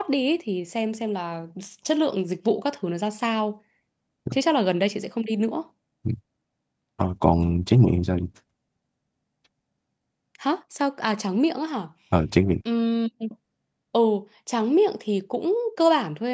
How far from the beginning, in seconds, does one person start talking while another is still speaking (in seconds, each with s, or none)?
none